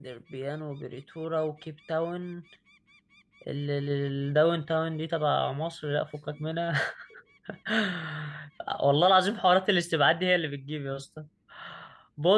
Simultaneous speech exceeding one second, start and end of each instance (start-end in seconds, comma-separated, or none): none